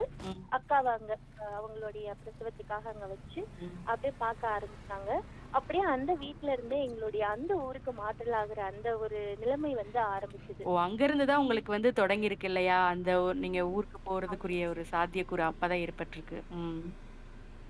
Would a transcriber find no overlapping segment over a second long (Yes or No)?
Yes